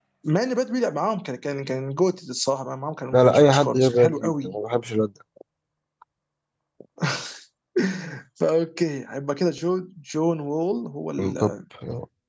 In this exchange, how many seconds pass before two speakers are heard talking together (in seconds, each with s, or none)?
3.1 s